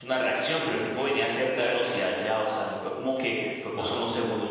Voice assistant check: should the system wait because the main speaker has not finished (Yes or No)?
Yes